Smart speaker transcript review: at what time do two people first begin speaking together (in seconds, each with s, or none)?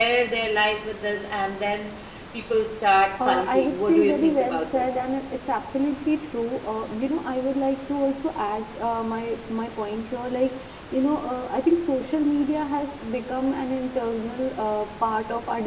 3.2 s